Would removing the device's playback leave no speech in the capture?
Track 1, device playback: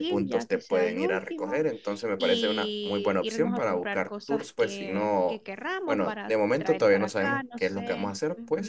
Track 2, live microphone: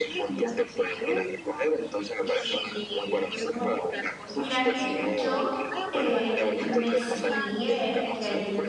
No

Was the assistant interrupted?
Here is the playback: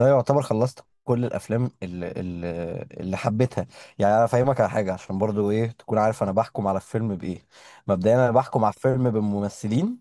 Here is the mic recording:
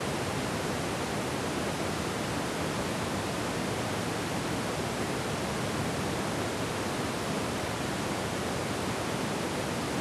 No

